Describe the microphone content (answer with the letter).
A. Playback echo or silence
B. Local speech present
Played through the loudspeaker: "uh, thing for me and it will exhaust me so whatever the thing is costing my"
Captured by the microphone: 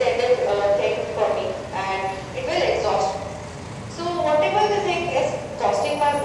A